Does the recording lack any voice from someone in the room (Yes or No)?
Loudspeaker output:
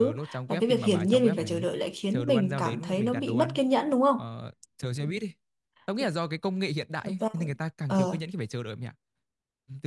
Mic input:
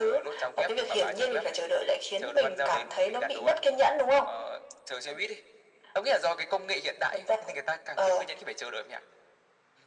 Yes